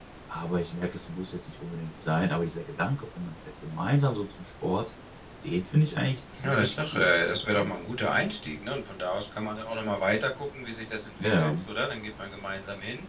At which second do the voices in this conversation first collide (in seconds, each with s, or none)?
6.4 s